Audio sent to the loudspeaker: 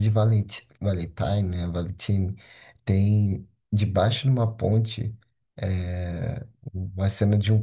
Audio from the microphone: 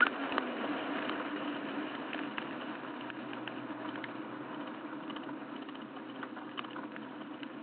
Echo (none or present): none